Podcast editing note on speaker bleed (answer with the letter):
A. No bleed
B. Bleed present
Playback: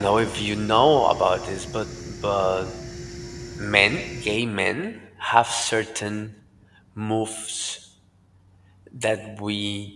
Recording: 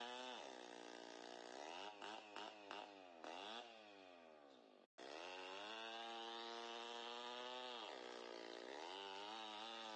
A